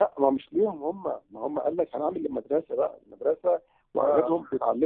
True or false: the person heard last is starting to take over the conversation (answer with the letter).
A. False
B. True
A